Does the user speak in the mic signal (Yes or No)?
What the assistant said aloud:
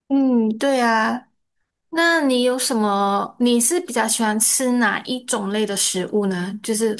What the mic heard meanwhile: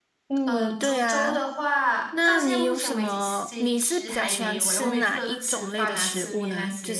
Yes